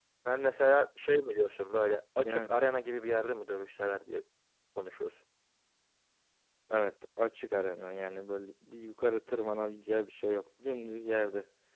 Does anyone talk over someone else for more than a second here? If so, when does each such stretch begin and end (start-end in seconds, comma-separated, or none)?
none